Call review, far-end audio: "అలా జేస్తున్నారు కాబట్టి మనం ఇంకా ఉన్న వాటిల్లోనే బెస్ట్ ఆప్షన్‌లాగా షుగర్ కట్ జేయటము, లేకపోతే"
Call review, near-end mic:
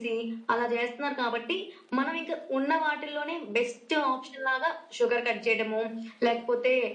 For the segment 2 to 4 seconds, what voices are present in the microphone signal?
echo only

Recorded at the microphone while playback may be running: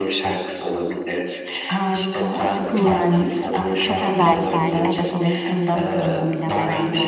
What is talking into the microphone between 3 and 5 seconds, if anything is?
both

